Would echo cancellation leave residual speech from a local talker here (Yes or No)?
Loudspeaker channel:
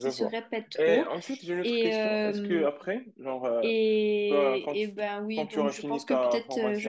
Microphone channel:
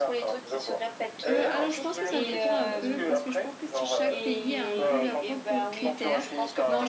Yes